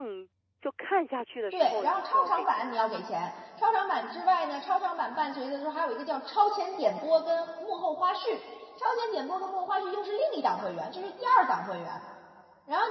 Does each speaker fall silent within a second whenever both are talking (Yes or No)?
No